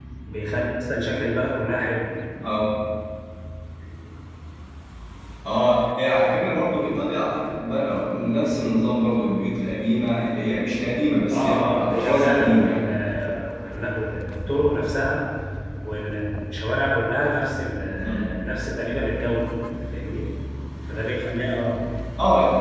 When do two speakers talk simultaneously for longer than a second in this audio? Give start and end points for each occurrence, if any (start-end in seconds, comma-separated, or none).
11.3-12.8